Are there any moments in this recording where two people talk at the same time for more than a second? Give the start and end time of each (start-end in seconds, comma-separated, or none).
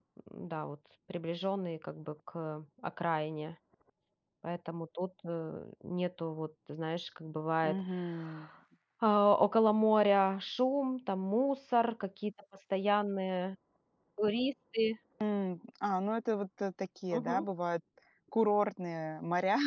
none